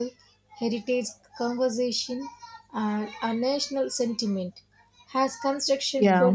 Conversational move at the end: listening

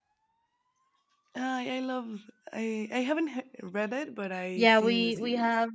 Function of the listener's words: taking over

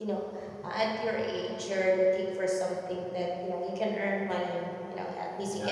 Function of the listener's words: listening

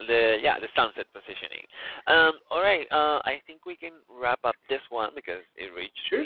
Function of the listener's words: taking over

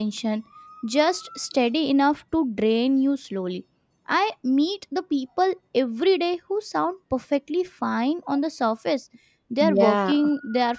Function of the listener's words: listening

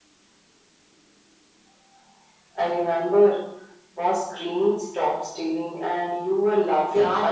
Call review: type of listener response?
taking over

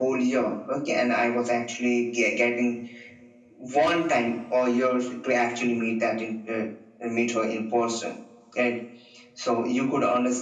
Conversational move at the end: listening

